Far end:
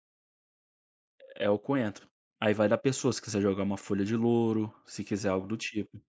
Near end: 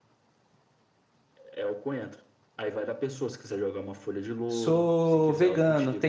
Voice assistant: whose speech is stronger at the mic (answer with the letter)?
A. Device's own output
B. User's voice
B